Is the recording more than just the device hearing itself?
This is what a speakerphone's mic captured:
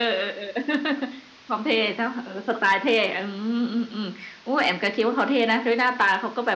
No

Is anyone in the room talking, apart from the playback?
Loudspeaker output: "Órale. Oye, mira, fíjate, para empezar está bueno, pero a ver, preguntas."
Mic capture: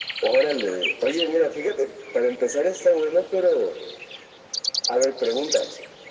No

